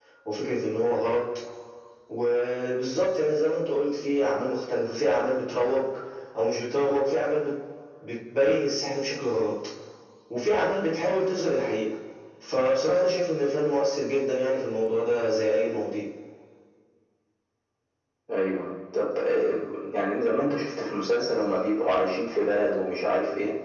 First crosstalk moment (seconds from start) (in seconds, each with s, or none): none